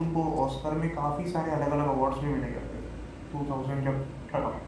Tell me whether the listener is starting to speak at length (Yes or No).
No